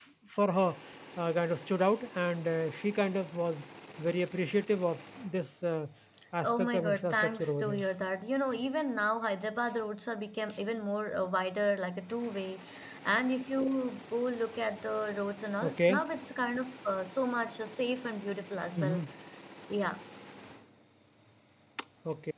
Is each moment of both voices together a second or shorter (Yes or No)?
No